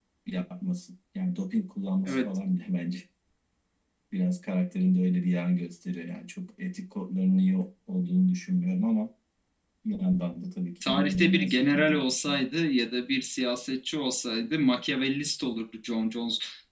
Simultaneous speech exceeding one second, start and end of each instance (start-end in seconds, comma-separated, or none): 10.9-12.3